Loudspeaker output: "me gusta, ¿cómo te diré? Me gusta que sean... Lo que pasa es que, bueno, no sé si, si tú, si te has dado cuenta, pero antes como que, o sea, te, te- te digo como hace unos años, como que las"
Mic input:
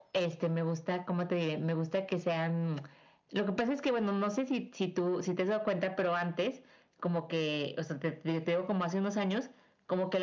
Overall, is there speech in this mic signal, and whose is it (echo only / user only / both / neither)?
echo only